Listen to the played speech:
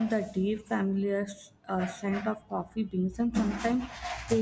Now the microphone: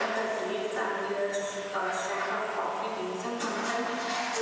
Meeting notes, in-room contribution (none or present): none